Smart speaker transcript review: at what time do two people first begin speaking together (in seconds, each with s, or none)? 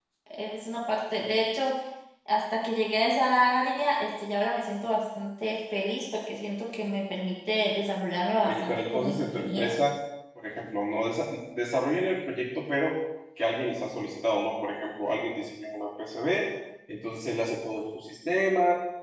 8.4 s